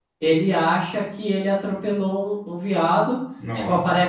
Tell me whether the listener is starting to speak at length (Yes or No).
No